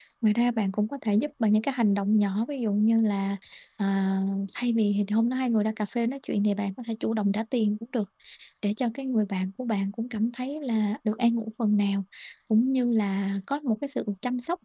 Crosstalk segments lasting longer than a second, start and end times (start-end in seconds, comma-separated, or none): none